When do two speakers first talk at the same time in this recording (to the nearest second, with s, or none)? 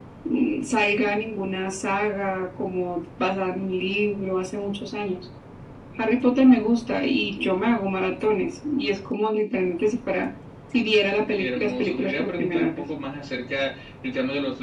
11 s